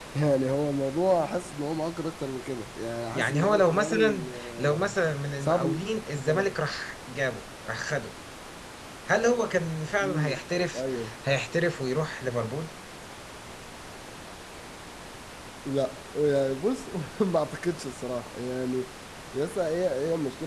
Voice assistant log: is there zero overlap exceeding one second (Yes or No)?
No